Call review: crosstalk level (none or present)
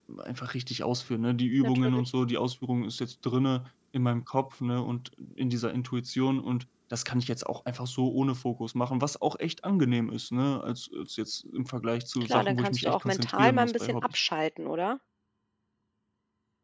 present